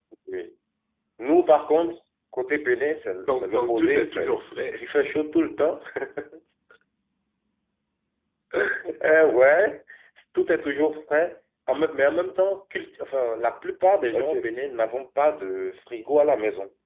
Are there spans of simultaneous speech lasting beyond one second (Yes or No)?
Yes